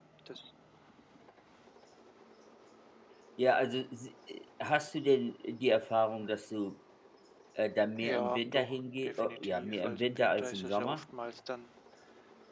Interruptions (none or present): present